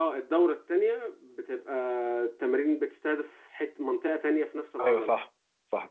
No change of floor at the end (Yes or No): No